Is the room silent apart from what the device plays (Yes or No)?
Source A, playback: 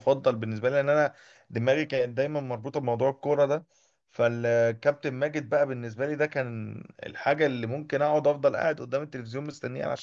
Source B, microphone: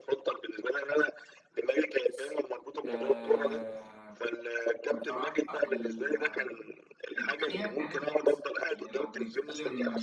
No